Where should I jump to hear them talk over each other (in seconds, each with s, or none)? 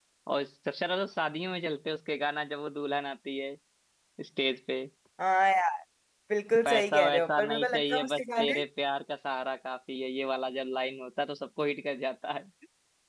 6.7 s